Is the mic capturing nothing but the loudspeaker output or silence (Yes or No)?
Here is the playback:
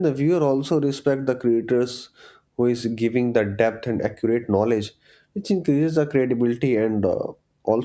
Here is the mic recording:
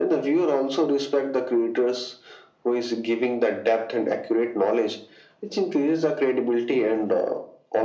Yes